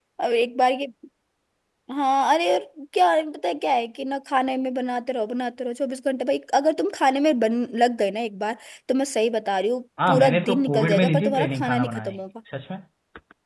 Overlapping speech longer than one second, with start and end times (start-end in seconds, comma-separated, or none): 10.1-12.2